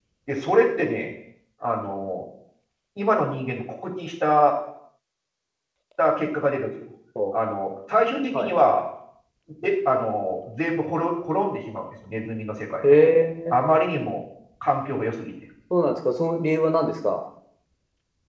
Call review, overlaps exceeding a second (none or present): none